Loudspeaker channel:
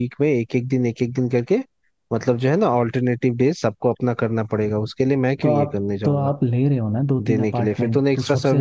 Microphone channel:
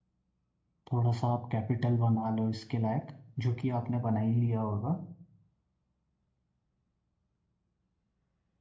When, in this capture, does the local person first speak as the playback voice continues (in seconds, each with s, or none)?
0.9 s